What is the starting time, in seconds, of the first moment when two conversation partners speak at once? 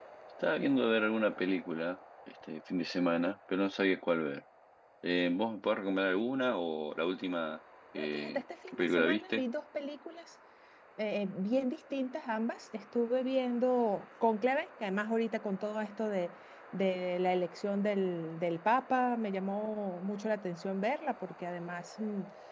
8.0 s

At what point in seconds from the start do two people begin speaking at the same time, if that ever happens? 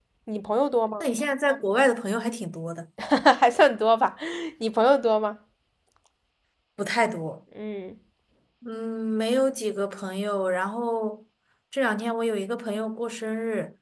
none

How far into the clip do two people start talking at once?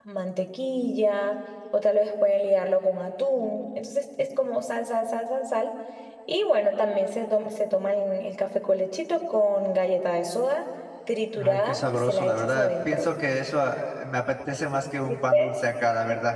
11.4 s

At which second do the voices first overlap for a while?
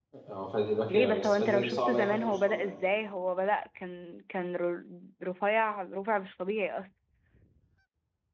0.9 s

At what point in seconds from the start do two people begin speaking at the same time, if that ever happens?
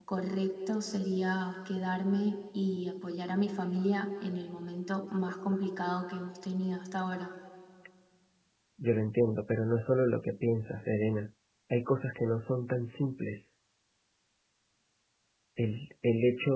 none

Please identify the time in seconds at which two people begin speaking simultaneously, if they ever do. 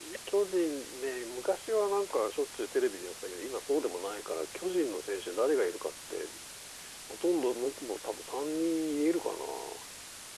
none

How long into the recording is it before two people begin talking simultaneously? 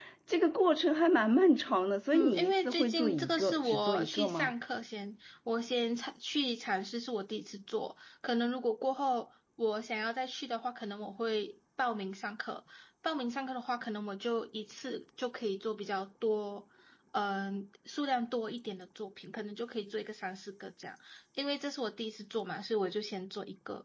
2.1 s

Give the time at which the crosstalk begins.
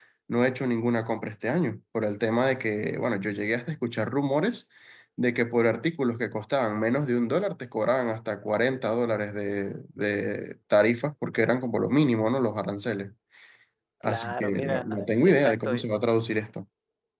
14.0 s

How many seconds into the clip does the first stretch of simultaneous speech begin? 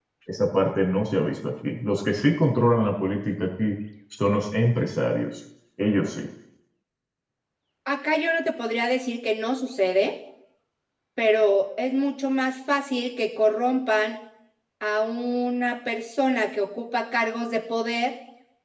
none

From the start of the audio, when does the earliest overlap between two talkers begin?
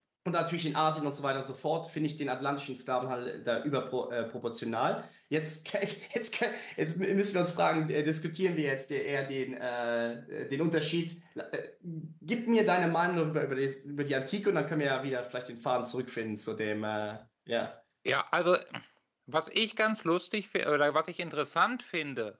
none

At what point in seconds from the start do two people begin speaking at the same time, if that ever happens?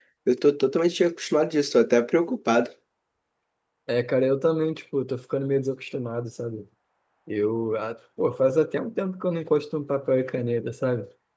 none

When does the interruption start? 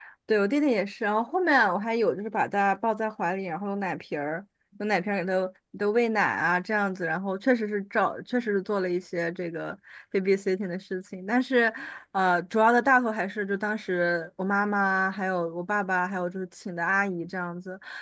none

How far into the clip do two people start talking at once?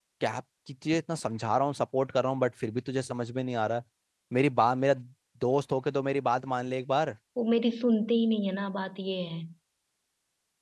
none

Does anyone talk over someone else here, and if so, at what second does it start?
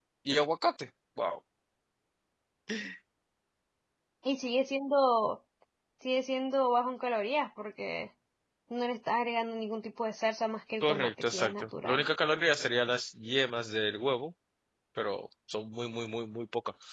10.8 s

